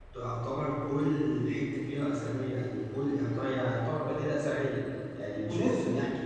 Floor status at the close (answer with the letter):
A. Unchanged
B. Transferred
A